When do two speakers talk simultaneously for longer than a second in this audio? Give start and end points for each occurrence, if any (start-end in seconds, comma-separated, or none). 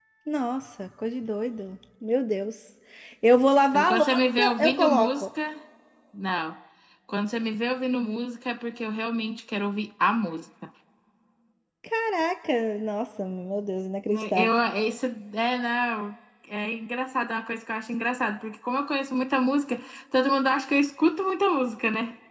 3.7-5.2